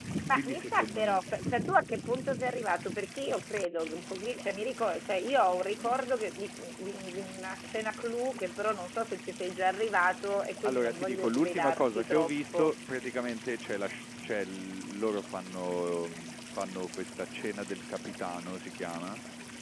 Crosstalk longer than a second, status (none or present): present